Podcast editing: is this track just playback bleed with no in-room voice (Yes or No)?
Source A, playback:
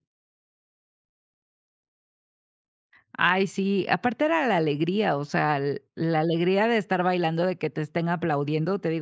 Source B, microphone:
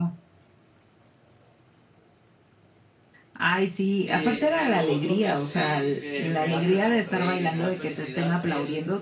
No